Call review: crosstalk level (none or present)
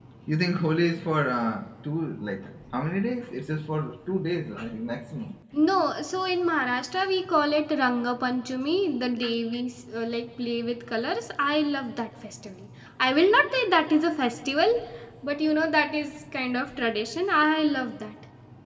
none